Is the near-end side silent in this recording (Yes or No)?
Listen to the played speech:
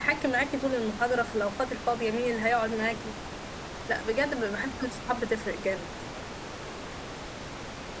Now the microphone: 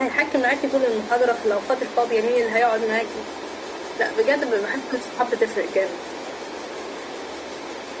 Yes